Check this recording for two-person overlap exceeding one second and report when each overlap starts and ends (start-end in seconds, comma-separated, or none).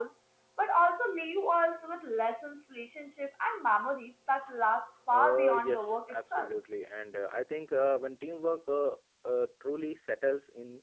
5.1-6.5